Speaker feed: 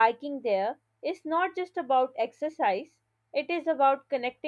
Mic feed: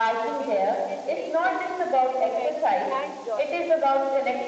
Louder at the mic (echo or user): echo